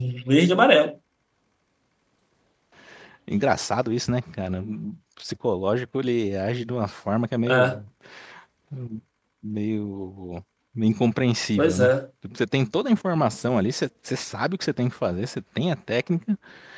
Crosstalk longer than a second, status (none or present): none